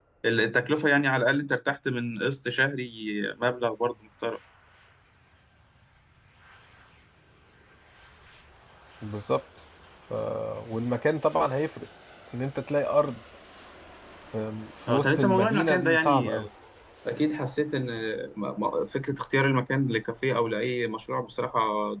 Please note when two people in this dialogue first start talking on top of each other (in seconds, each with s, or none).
14.9 s